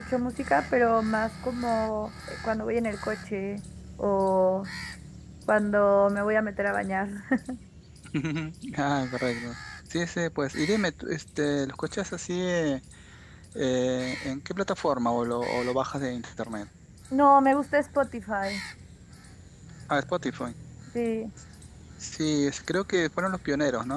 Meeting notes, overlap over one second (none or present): none